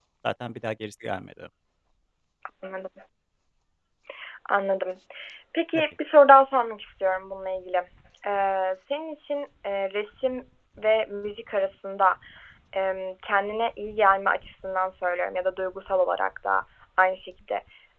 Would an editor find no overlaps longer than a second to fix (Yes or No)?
Yes